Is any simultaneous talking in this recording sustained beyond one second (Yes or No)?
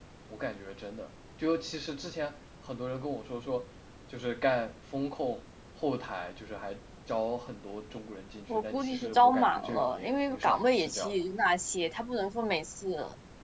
Yes